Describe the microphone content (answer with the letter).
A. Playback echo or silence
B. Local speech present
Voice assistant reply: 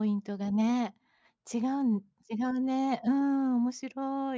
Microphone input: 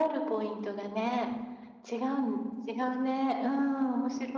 A